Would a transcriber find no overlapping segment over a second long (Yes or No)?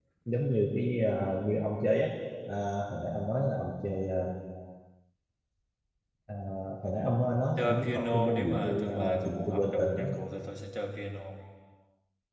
No